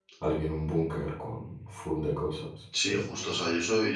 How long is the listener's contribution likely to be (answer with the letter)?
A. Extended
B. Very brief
A